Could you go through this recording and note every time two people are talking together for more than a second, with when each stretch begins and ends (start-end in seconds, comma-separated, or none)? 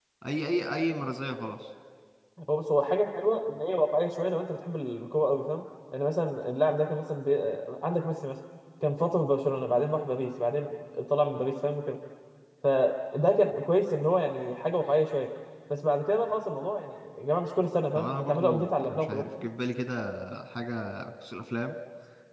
17.9-19.2